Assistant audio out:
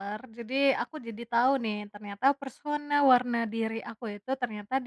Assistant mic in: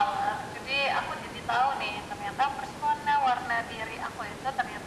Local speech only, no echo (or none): none